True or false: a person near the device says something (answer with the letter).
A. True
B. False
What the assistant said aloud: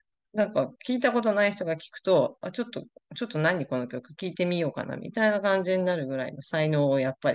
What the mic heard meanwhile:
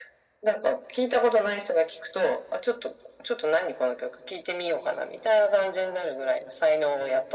B